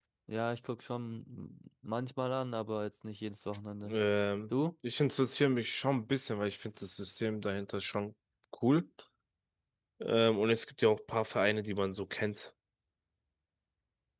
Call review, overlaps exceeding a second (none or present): none